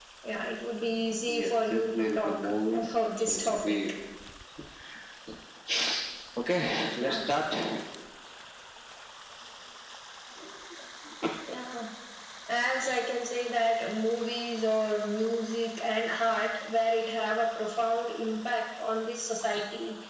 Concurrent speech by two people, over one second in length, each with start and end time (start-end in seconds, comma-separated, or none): 1.4-3.8